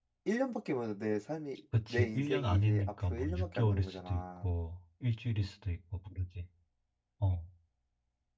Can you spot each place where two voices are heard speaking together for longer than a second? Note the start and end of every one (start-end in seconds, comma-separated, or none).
1.9-4.5